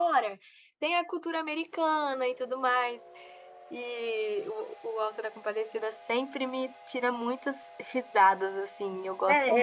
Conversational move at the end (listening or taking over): taking over